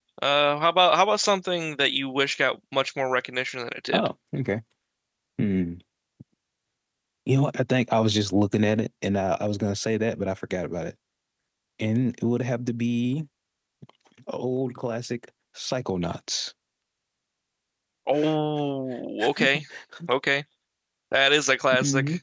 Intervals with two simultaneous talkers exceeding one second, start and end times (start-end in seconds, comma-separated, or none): none